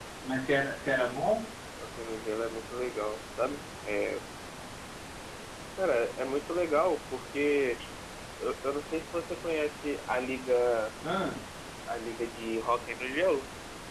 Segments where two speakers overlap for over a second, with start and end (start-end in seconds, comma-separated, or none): none